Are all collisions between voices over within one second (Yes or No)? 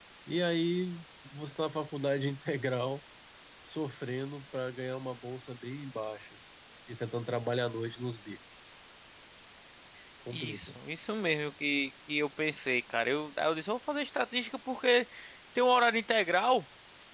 Yes